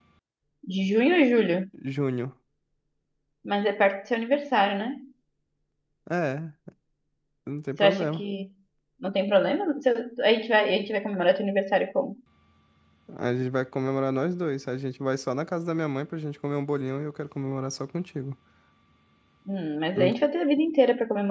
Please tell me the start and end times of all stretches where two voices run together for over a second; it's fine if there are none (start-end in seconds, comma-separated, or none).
none